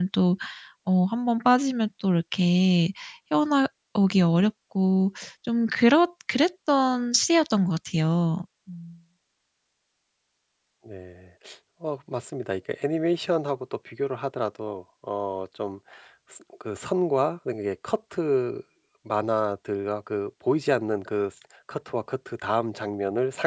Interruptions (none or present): none